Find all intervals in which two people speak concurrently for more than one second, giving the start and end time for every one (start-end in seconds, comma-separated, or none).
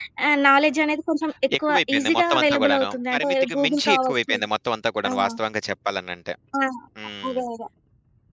1.7-4.4